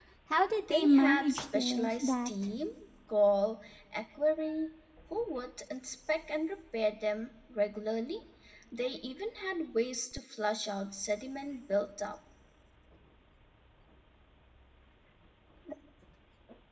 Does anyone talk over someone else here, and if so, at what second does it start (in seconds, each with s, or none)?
0.7 s